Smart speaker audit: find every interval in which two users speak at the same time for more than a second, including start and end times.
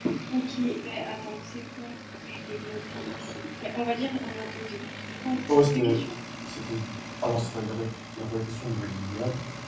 none

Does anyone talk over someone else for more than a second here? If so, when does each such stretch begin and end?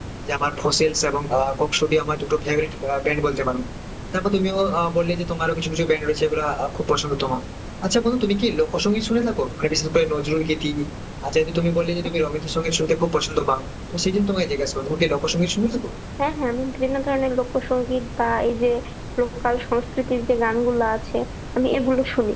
none

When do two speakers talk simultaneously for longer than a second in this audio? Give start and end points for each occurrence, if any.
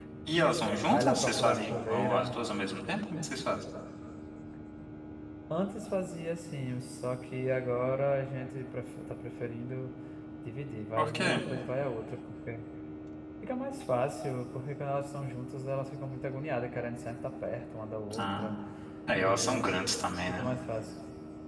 0.8-2.3

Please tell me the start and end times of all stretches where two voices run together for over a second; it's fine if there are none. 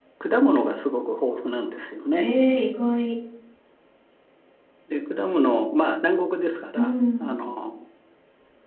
none

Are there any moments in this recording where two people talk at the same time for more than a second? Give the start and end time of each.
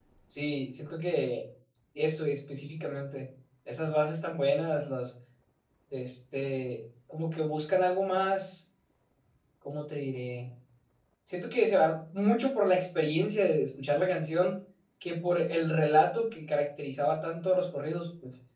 none

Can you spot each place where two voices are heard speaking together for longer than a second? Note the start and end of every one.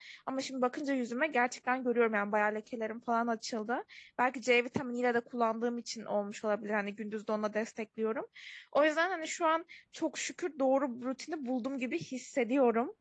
none

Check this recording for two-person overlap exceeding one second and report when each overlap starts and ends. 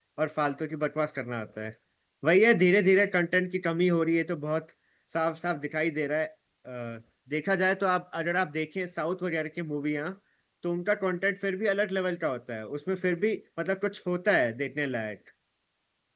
none

